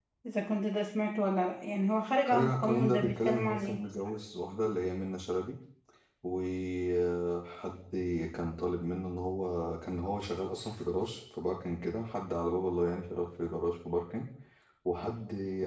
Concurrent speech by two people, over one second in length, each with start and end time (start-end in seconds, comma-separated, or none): 2.2-3.8